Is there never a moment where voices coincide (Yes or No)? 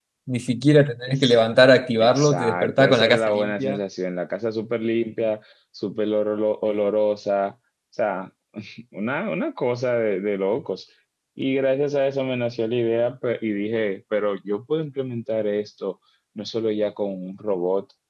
No